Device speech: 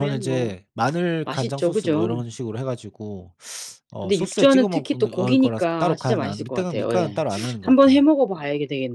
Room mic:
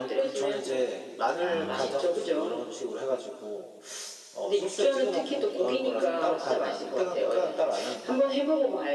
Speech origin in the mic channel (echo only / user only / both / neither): both